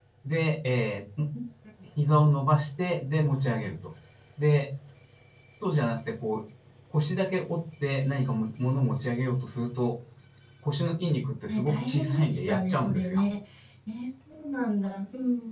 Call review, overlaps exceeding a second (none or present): present